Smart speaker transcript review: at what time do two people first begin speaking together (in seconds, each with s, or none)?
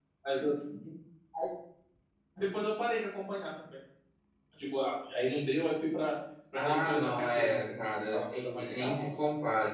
6.6 s